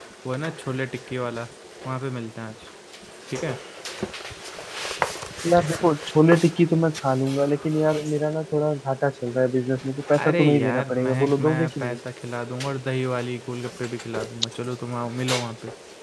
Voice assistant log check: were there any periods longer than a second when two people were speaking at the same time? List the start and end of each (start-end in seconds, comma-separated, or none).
10.2-12.0